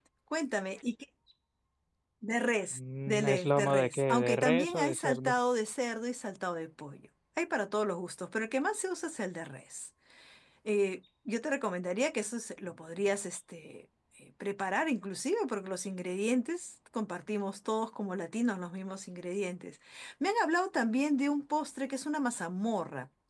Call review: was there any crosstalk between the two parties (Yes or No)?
Yes